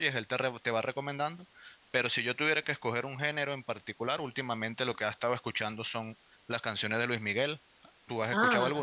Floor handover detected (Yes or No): Yes